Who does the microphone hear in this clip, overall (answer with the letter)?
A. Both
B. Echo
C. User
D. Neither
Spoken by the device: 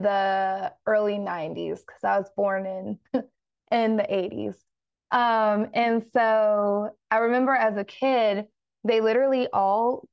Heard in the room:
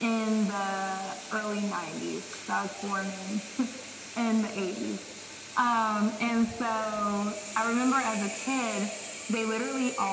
B